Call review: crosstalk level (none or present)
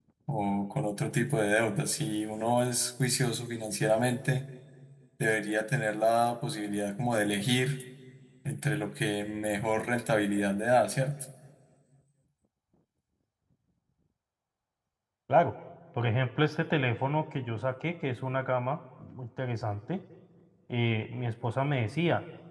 none